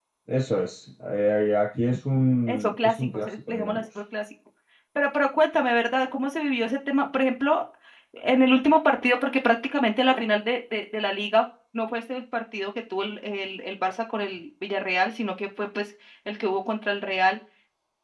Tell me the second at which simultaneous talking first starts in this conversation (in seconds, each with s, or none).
2.5 s